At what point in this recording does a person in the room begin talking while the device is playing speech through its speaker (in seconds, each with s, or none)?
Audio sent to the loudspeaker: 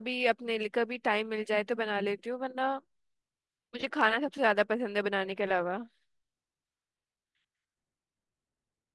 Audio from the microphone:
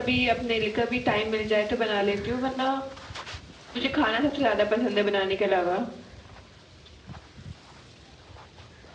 none